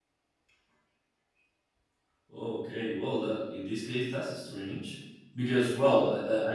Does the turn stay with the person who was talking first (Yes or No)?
Yes